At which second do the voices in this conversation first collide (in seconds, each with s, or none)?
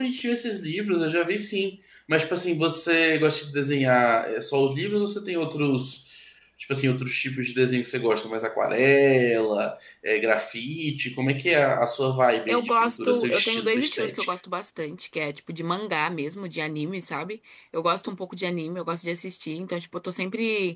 12.5 s